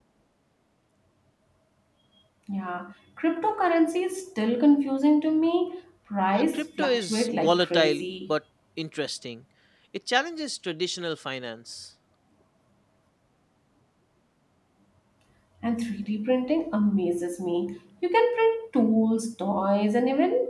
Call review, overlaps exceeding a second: present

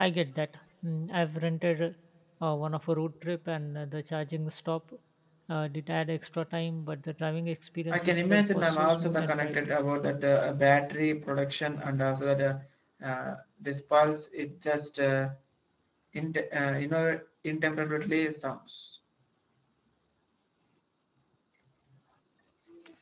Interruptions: present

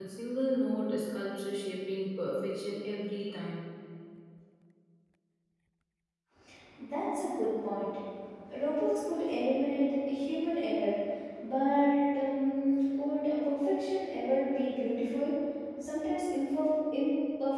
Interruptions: none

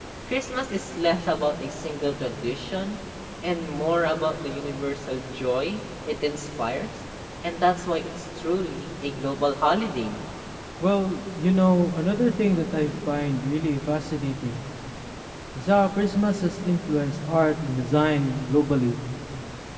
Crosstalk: none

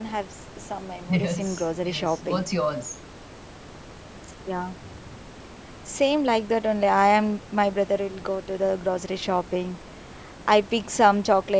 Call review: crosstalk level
present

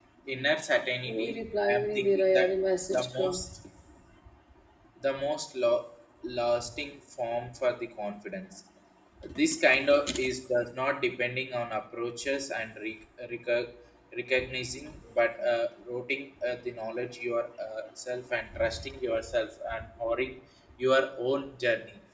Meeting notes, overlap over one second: present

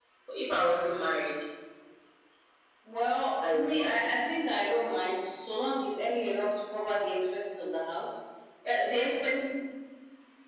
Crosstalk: present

